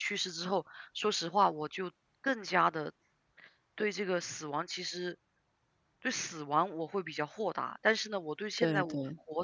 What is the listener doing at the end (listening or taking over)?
listening